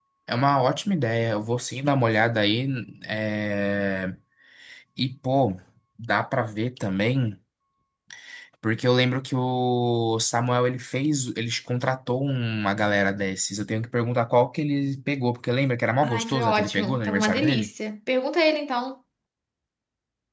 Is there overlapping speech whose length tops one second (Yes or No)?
Yes